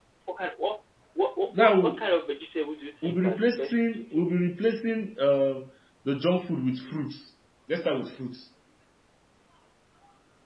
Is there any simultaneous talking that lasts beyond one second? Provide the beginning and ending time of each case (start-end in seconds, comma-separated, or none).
3.0-4.2